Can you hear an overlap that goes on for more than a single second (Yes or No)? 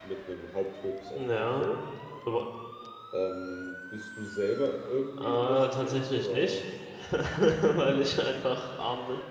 Yes